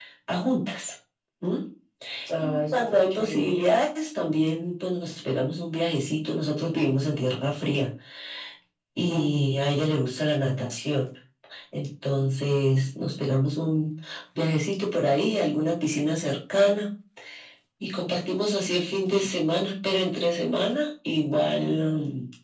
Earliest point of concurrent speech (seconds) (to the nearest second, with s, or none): 2 s